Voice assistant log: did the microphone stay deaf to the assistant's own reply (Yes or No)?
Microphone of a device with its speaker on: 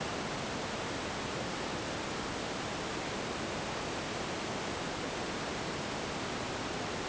Yes